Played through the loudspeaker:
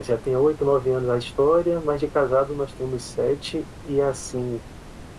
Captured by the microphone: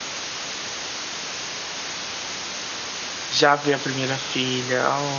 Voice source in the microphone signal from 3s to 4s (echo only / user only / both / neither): user only